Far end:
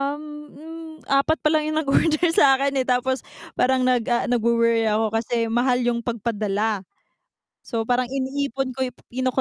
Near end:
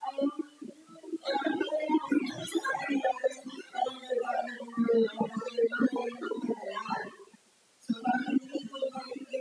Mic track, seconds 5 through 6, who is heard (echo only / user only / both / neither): echo only